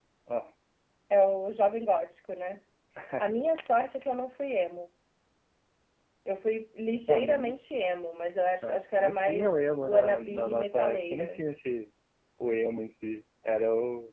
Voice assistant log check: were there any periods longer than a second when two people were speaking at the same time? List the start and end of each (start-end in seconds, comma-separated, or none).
8.6-11.4